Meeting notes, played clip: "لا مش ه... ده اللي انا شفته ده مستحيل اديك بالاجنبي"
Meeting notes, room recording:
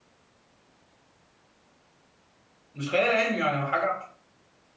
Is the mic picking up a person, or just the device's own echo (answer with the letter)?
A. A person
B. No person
A